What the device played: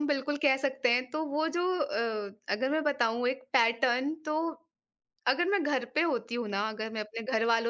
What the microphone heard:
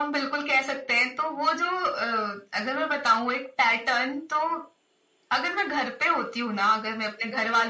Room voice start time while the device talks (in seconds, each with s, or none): none